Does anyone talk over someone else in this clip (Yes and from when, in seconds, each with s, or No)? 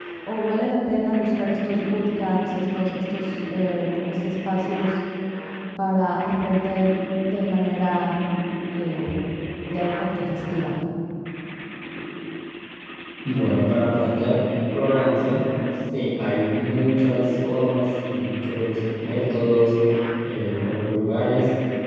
No